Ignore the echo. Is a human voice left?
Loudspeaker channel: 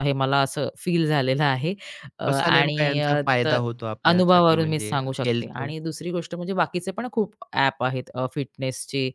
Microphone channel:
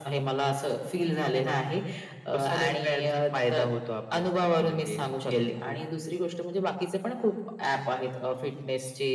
No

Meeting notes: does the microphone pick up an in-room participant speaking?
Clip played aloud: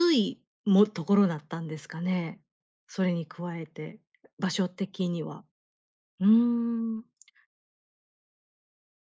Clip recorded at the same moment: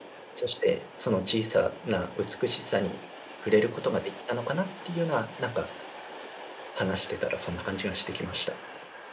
Yes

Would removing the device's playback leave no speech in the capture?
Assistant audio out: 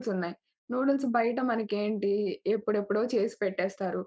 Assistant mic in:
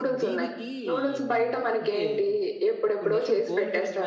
No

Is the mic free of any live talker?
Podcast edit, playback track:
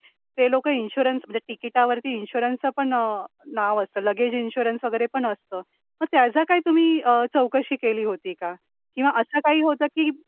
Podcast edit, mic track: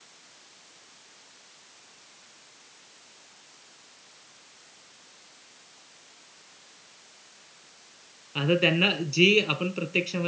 No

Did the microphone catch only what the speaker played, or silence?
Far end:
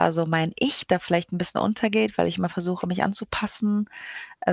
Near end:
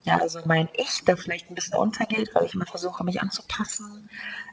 Yes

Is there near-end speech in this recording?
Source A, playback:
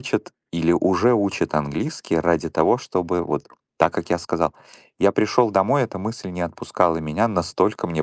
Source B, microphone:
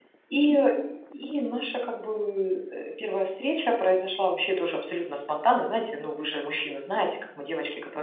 Yes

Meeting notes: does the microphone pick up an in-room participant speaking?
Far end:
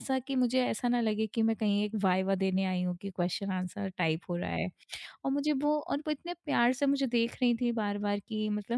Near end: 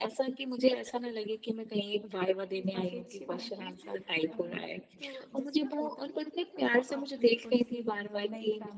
Yes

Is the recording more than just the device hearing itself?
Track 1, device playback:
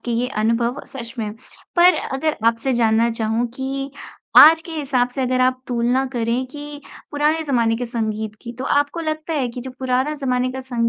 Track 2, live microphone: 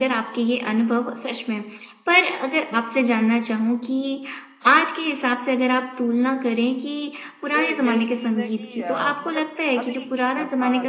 Yes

